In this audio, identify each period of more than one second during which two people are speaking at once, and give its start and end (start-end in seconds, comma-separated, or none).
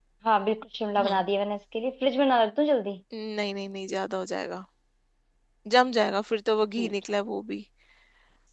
none